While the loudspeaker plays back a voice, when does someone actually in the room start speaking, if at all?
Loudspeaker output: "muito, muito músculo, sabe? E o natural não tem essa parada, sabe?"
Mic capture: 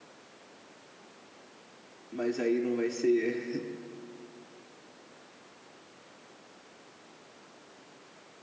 2.1 s

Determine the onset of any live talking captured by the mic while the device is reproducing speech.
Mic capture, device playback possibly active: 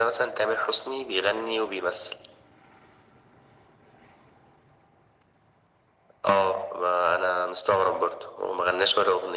none

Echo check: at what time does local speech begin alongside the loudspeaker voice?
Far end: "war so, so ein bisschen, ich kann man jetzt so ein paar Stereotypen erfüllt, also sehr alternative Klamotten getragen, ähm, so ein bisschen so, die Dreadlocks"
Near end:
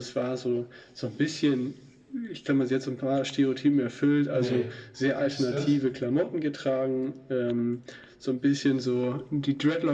4.3 s

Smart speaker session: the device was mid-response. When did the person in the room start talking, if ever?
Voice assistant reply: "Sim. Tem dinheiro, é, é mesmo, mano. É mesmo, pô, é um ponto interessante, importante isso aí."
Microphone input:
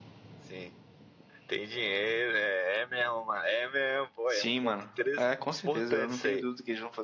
4.3 s

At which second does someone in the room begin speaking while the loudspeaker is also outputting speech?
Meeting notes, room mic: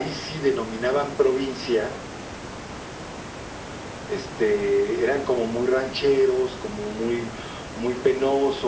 none

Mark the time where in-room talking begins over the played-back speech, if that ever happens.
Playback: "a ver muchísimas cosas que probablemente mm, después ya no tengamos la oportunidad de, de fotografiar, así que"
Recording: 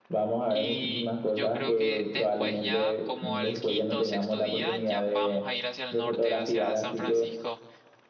0.5 s

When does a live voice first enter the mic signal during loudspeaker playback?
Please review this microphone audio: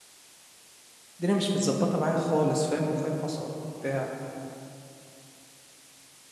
1.1 s

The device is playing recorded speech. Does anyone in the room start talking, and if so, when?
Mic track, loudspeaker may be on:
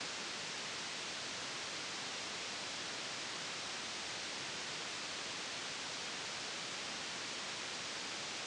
none

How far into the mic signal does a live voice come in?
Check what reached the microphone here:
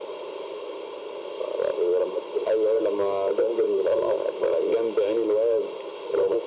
none

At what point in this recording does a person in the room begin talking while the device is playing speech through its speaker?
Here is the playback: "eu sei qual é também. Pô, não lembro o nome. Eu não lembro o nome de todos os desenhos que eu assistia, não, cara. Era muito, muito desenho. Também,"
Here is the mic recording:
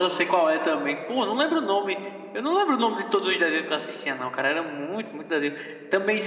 none

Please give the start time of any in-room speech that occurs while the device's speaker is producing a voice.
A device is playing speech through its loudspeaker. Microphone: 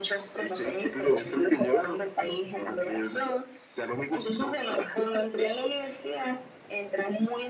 none

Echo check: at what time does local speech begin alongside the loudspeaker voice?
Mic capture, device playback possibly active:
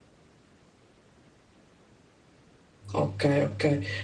2.9 s

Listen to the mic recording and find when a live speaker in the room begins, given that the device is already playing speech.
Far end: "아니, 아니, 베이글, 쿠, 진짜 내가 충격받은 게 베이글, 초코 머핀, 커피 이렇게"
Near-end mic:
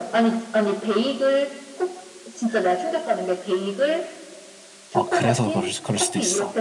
4.9 s

